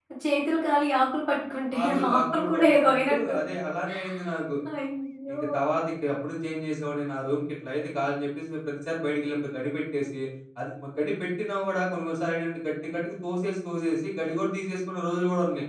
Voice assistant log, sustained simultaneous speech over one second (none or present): present